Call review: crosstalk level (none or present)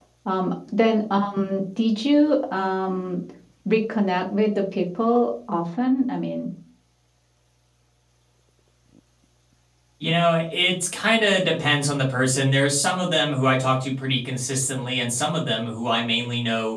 none